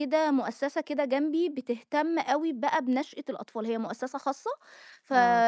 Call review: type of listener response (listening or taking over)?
listening